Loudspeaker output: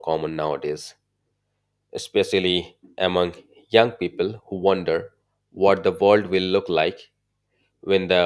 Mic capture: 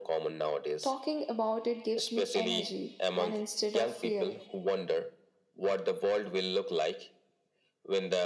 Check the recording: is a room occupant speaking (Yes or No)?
Yes